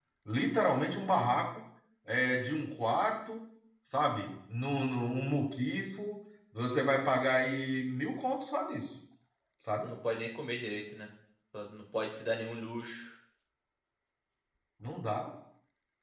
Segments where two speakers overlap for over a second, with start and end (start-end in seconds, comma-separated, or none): none